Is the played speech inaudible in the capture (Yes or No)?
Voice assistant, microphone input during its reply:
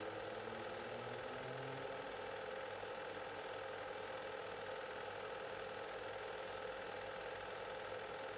Yes